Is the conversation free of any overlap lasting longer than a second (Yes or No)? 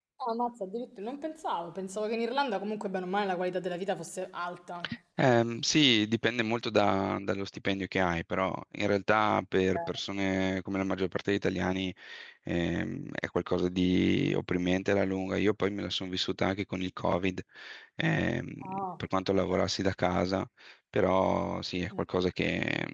Yes